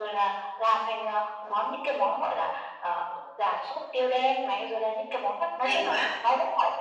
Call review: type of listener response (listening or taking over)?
listening